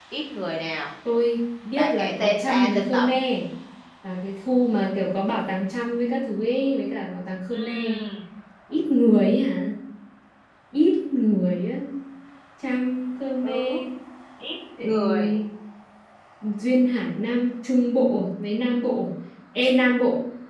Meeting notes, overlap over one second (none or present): present